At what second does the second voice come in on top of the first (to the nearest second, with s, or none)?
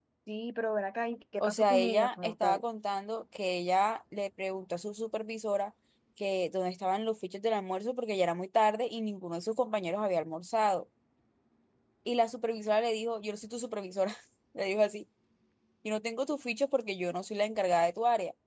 1 s